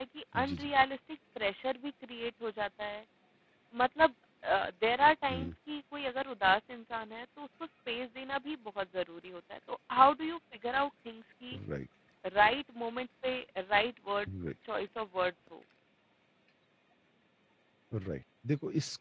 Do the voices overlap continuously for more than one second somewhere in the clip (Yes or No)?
No